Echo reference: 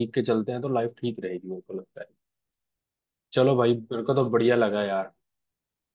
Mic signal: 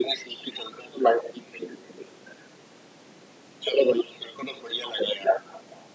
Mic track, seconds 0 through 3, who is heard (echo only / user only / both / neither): echo only